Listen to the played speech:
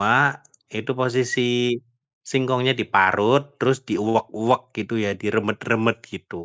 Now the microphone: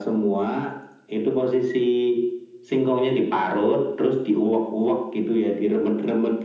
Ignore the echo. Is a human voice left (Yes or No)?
No